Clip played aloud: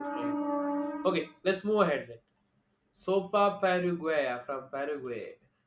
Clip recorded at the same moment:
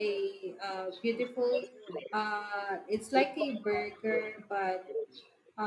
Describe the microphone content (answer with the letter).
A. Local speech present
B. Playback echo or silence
A